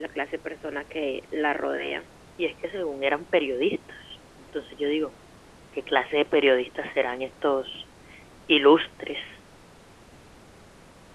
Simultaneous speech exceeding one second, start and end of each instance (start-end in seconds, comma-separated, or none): none